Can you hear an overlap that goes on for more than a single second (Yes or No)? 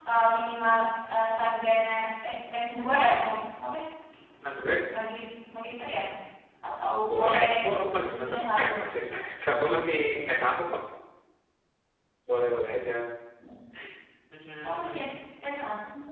Yes